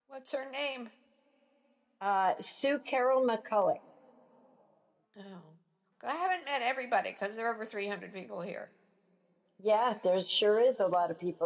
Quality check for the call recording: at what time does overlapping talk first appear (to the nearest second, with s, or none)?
none